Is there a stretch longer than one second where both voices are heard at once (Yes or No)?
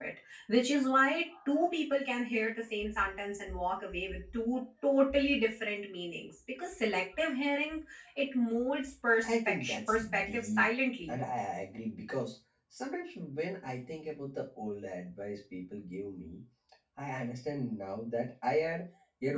Yes